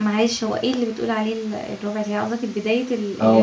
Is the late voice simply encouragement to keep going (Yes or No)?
No